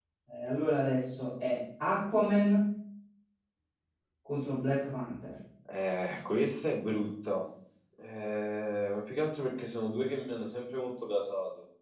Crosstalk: none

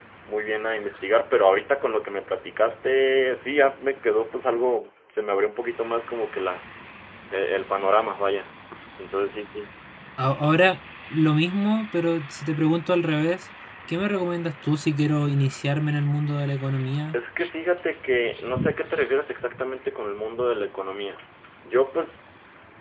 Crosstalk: none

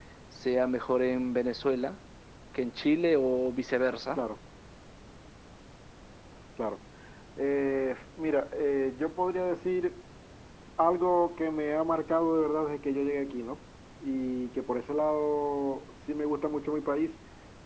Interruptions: none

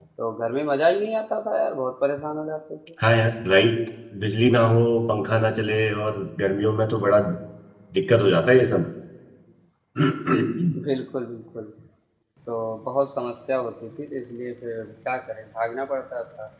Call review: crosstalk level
none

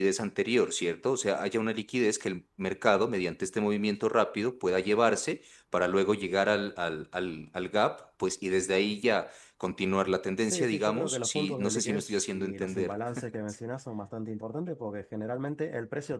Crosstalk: present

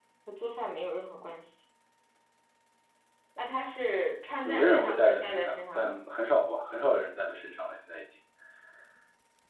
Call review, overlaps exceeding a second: present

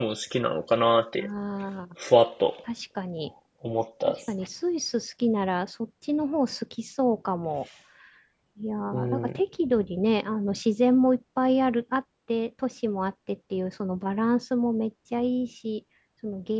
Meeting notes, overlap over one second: none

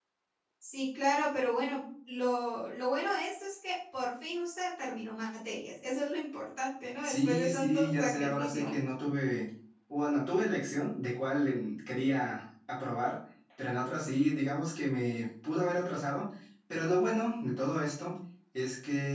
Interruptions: present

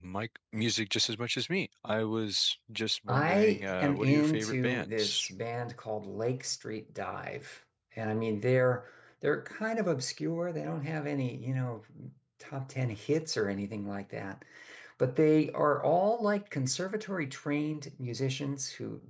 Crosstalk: present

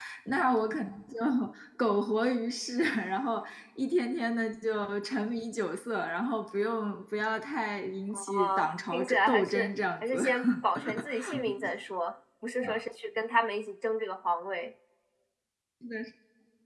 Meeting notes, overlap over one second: present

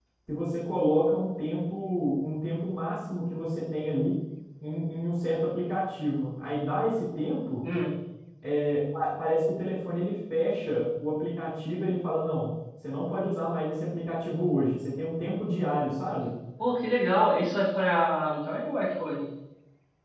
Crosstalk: none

